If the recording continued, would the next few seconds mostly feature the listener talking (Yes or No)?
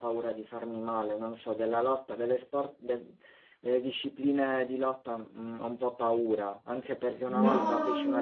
No